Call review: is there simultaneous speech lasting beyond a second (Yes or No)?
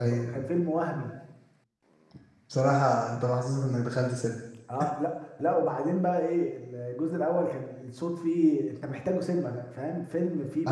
No